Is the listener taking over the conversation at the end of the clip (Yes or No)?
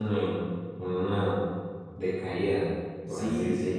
Yes